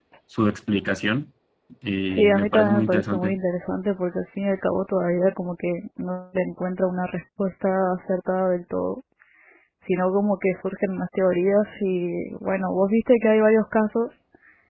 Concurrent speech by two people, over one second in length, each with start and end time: 2.1-3.4

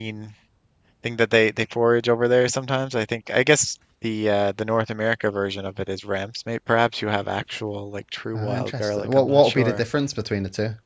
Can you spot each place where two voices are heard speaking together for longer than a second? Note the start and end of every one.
8.3-9.8

